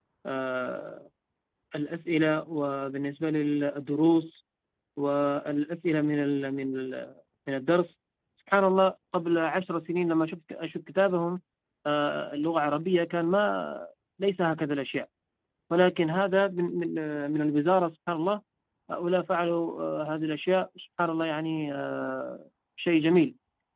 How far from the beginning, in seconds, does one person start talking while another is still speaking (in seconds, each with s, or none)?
none